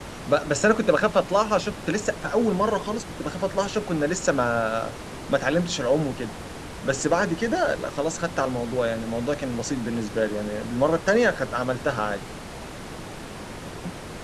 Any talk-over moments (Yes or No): No